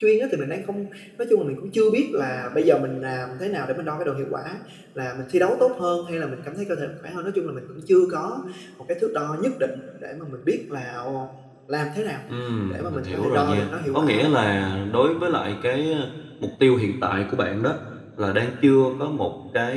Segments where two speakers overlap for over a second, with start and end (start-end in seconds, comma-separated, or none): 12.7-14.3